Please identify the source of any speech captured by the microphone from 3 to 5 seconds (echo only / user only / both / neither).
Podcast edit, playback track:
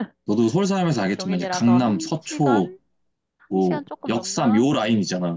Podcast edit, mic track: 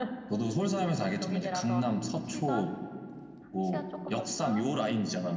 echo only